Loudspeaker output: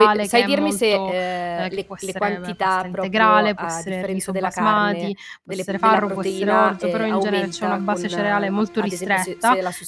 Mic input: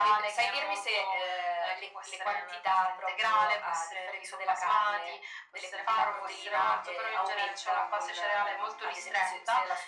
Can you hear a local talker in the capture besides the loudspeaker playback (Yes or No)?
No